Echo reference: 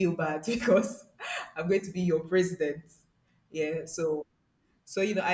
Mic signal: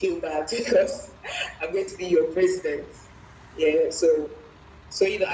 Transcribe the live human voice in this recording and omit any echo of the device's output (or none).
none